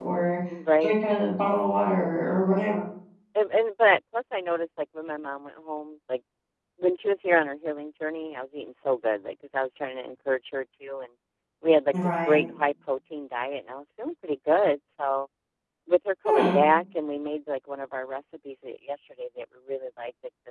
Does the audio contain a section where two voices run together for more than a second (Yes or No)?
No